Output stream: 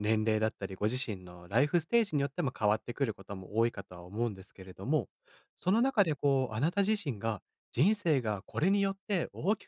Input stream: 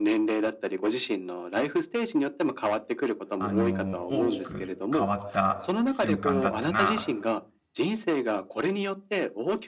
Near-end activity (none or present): present